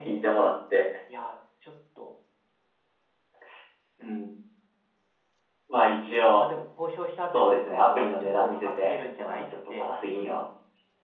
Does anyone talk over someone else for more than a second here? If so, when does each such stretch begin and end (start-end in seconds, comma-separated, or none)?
7.3-9.9